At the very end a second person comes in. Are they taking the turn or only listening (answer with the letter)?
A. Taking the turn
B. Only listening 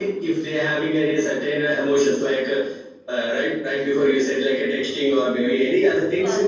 B